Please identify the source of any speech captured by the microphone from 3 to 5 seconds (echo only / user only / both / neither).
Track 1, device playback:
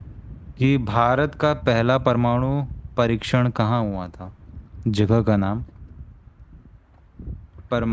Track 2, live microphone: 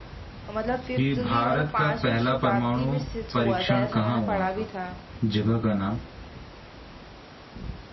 both